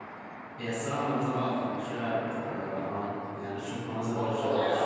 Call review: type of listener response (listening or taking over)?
taking over